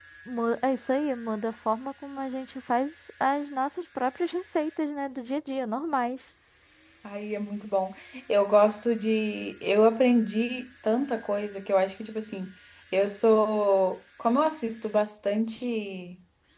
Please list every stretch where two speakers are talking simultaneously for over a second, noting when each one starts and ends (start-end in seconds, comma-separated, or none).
none